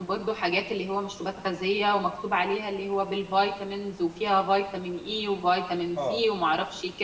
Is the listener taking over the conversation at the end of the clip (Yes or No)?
No